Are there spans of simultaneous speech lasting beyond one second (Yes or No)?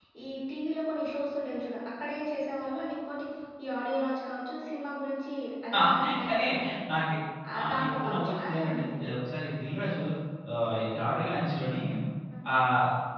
Yes